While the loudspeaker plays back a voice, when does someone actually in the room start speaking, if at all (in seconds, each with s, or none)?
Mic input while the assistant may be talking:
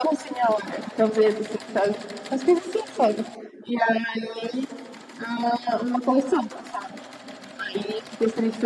none